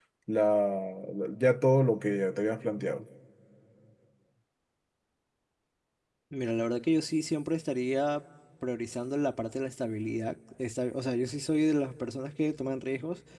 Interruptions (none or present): none